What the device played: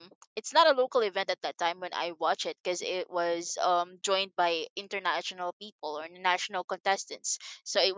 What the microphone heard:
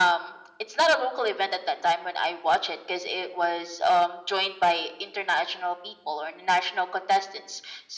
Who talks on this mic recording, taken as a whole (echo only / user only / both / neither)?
echo only